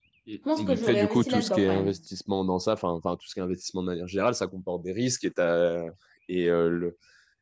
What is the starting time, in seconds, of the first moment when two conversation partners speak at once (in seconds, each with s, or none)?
0.6 s